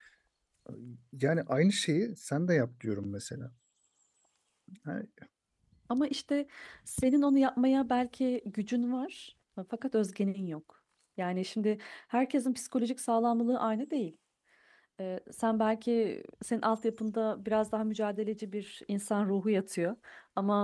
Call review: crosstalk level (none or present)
none